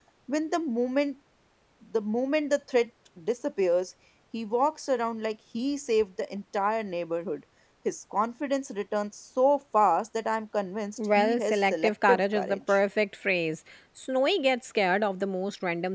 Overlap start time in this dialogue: 11.0 s

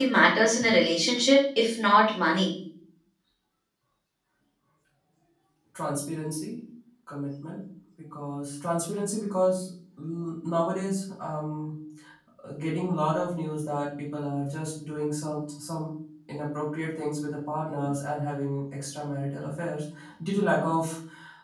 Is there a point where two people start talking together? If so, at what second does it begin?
none

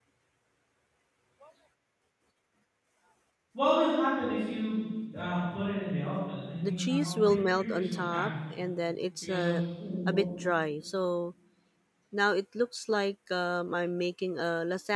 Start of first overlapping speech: 6.6 s

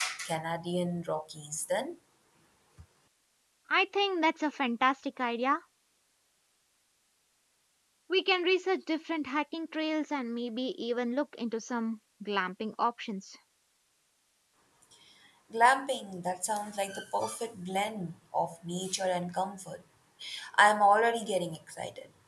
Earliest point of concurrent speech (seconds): none

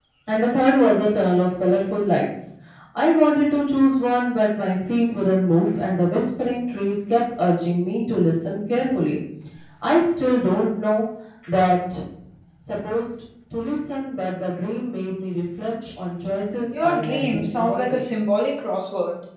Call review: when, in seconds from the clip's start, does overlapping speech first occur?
16.8 s

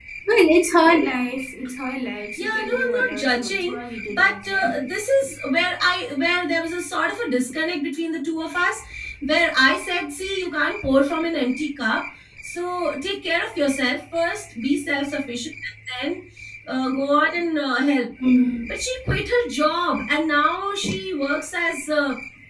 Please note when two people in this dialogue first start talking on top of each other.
2.4 s

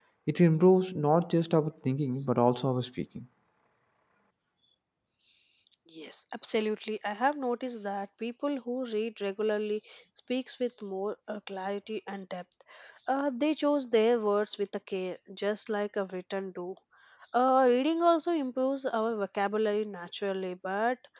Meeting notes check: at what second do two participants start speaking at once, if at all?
none

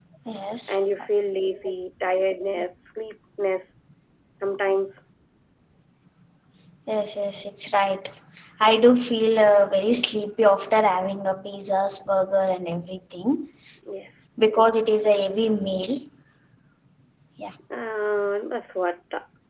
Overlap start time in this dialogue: none

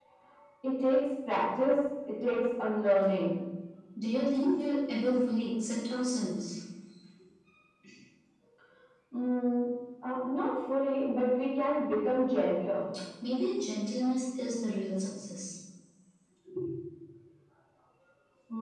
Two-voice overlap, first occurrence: none

